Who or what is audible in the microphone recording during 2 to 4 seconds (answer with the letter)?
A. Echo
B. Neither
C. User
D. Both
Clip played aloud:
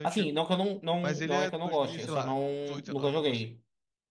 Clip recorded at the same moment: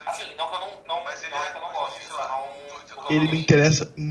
D